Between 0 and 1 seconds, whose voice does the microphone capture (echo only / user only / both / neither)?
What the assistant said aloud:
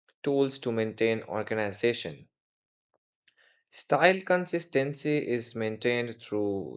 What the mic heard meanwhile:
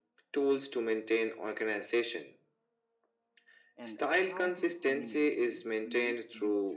echo only